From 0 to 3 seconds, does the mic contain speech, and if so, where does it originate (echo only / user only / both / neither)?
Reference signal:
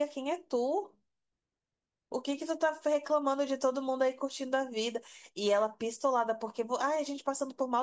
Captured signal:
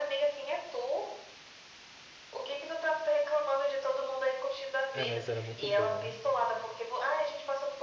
echo only